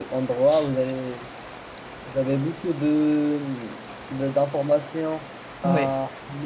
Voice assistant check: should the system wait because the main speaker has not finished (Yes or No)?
Yes